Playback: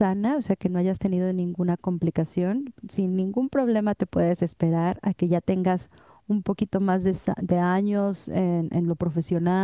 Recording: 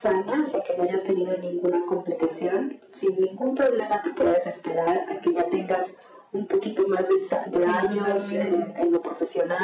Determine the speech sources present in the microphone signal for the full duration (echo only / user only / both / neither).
both